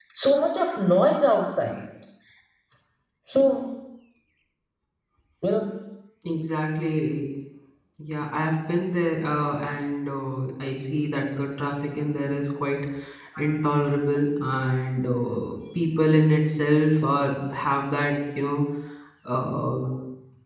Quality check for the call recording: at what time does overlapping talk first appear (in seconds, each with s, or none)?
none